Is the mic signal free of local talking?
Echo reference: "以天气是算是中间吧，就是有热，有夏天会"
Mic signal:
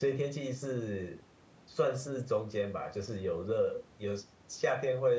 Yes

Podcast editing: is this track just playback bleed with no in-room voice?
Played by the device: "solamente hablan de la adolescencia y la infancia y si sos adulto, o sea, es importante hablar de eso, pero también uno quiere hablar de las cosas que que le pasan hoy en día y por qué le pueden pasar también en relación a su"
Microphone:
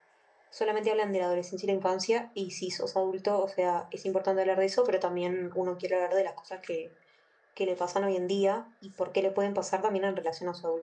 Yes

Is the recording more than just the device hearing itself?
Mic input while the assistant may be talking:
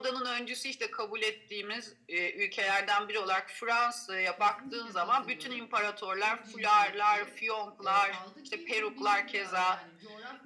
Yes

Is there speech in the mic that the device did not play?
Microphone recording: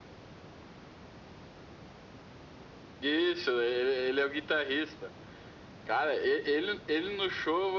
No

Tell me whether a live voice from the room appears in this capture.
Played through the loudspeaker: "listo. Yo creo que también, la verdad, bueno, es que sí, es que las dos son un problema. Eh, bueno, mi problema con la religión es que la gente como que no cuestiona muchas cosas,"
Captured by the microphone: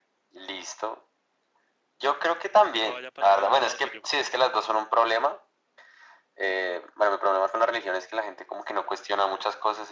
Yes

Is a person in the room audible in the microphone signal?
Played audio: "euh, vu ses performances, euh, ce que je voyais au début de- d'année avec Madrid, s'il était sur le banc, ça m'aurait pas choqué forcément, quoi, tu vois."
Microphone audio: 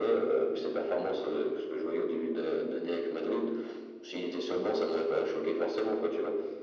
No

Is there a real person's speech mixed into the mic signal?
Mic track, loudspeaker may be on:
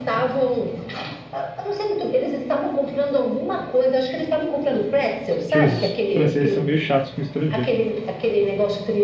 Yes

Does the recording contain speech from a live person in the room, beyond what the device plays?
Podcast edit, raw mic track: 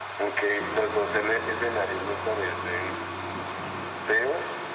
No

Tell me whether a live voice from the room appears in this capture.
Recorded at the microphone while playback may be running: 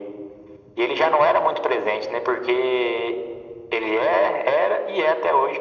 No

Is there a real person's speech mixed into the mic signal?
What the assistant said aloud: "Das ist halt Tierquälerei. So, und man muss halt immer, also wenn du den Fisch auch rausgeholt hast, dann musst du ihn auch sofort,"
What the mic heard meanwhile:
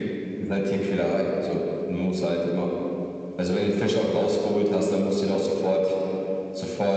No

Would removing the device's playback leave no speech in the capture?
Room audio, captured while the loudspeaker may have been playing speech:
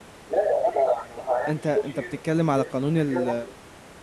No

